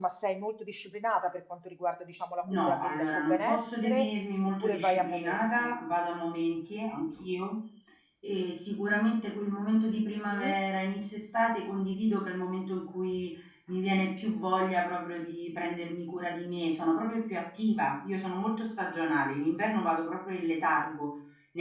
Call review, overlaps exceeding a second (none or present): present